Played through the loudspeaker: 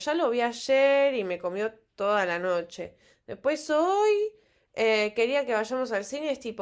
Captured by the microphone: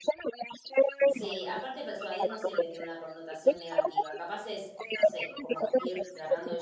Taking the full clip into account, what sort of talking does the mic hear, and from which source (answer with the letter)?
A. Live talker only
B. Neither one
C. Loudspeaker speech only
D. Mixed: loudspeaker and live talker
D